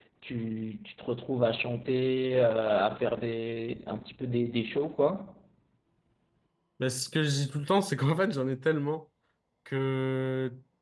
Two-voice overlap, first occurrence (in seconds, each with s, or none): none